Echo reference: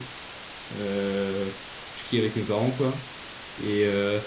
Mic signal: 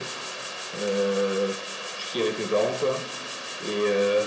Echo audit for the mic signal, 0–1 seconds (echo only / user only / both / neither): echo only